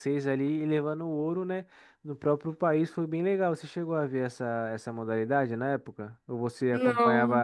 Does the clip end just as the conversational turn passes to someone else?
No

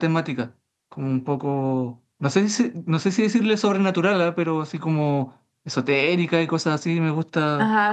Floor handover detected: Yes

